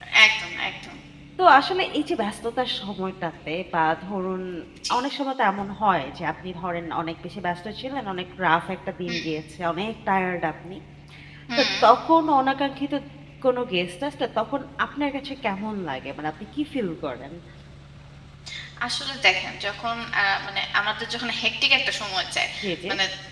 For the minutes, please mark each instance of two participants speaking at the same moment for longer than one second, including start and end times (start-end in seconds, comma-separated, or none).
none